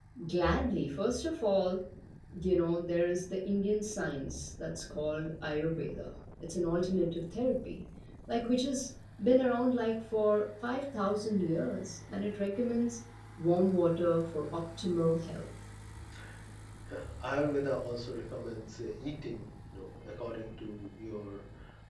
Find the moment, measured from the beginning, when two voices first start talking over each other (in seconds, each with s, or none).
none